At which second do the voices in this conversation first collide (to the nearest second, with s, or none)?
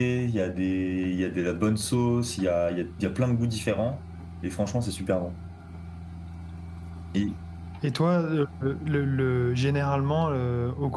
none